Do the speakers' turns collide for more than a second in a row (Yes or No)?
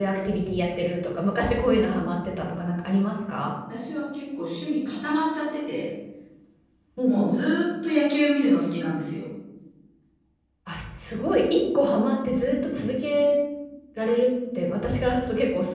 No